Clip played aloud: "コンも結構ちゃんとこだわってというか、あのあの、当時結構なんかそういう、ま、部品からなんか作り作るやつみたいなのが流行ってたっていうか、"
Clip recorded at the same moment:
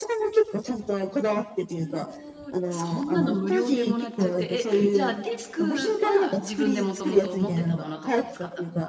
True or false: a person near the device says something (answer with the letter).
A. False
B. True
B